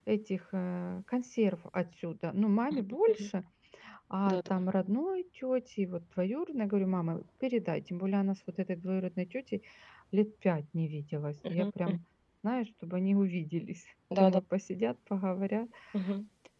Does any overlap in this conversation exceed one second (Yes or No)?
No